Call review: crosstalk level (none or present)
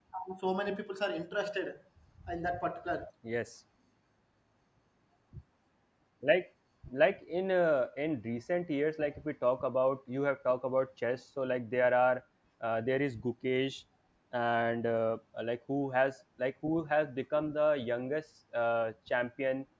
none